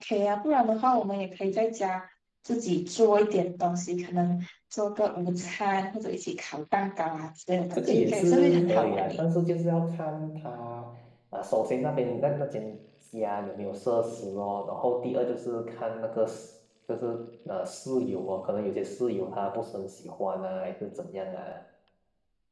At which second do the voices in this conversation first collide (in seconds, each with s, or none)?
7.7 s